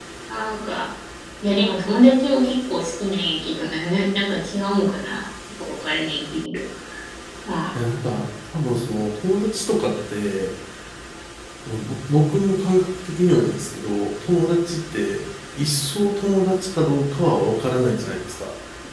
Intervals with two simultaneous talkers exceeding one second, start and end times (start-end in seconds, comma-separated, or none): none